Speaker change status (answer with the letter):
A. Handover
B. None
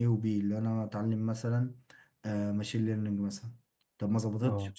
B